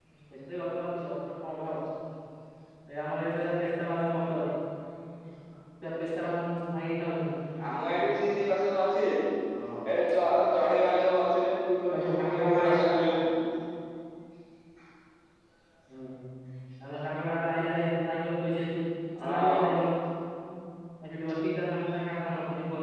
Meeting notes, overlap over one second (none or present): present